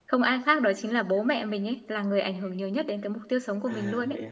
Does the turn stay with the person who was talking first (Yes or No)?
No